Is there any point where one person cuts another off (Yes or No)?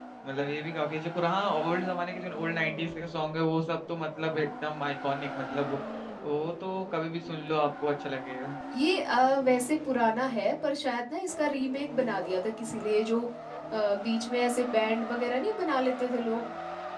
No